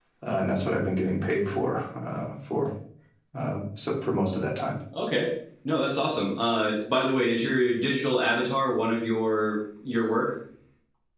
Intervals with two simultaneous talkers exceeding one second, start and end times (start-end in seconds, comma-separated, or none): none